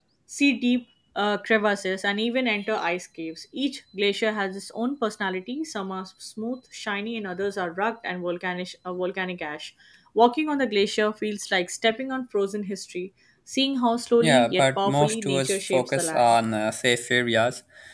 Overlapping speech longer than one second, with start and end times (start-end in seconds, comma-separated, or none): 14.2-16.4